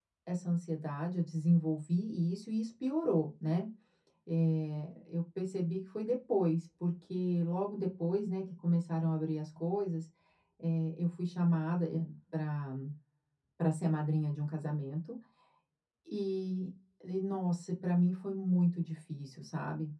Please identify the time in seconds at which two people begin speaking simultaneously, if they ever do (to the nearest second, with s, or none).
none